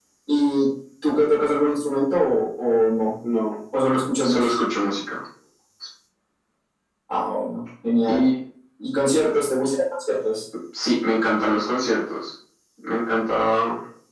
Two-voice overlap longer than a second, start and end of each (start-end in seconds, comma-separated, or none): none